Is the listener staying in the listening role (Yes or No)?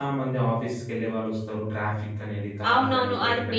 No